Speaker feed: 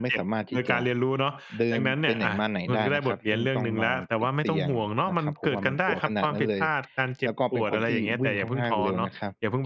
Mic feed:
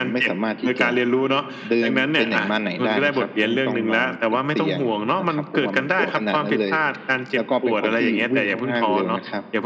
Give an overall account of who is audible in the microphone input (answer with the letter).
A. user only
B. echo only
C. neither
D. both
B